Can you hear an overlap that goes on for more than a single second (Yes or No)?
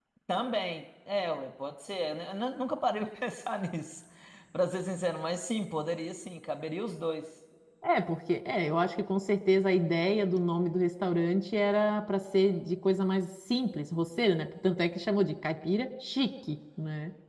No